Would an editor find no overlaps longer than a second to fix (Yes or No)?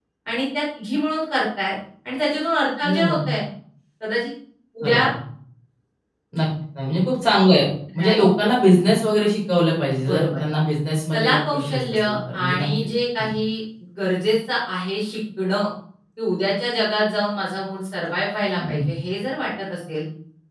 No